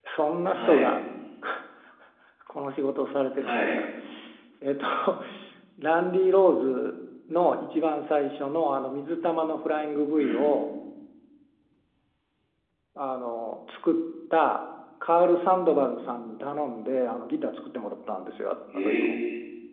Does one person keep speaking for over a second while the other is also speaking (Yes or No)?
No